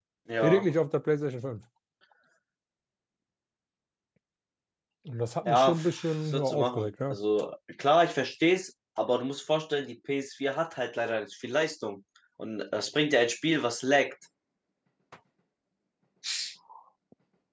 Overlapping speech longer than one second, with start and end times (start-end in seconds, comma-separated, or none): 5.5-7.2